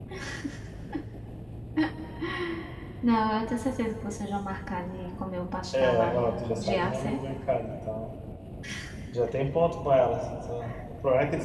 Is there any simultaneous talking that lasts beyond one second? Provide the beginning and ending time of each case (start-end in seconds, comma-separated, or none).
5.8-7.2